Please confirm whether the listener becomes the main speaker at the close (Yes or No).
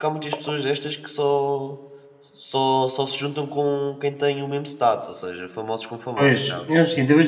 Yes